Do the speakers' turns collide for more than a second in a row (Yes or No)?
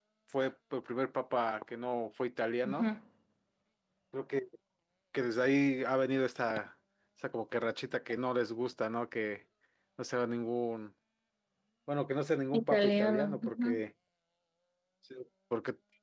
Yes